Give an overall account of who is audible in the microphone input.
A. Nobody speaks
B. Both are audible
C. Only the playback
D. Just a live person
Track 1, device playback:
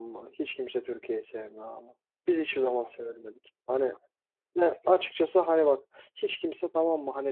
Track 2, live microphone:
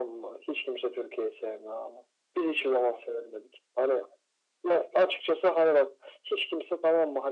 C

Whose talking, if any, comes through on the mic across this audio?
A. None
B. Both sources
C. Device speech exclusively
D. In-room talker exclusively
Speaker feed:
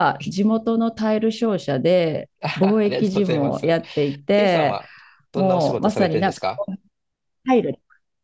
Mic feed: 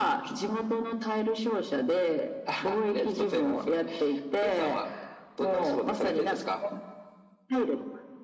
C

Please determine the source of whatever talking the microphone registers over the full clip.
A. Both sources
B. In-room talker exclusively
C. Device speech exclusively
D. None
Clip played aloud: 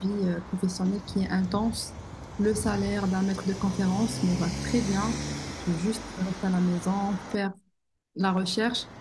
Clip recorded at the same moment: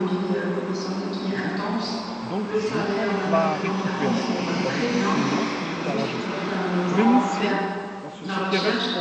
A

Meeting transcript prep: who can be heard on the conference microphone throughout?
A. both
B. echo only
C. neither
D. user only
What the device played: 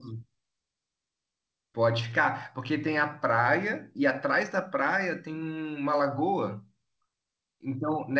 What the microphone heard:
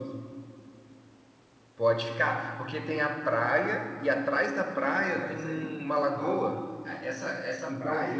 A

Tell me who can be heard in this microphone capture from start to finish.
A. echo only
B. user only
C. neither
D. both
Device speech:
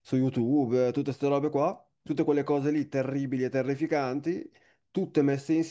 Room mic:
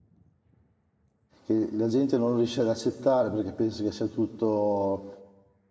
B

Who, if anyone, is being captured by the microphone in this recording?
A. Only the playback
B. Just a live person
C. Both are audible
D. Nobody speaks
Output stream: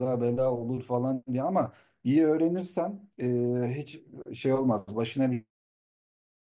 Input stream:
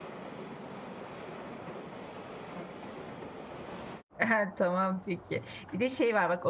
B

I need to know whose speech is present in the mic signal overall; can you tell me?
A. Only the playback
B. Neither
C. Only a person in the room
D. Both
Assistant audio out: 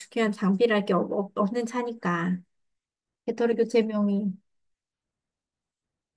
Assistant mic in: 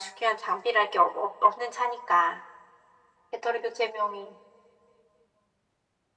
A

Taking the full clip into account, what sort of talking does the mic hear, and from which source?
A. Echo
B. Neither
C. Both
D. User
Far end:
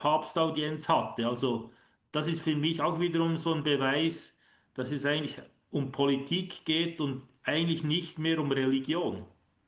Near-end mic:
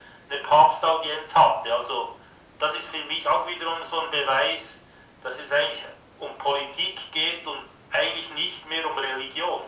A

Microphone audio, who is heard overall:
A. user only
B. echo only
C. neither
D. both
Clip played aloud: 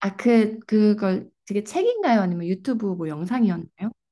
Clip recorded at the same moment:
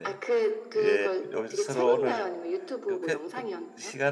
D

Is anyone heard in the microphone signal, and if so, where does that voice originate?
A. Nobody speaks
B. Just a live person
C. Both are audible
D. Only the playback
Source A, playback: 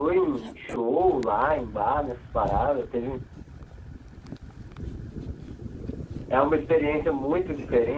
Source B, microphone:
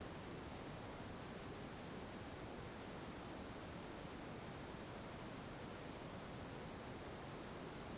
A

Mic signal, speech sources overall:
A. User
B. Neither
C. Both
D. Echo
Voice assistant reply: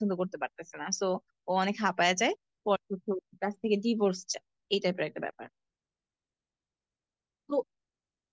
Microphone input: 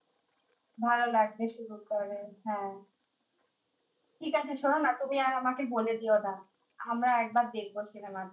A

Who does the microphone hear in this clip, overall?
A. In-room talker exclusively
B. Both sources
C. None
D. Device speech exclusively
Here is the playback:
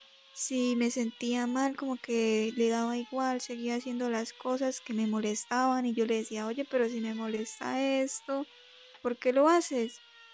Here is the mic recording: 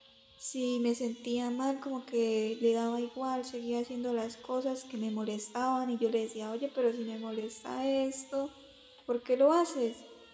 D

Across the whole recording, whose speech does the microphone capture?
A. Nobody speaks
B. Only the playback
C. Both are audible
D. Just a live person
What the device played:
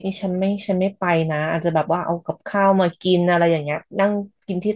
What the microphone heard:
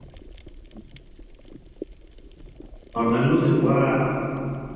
D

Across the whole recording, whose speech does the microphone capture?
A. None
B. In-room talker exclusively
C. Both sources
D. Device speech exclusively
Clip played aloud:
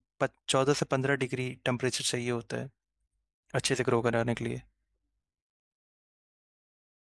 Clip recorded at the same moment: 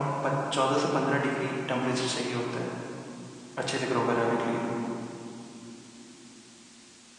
D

